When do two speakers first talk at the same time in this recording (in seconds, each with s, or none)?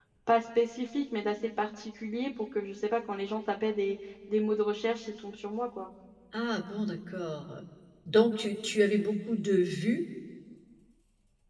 none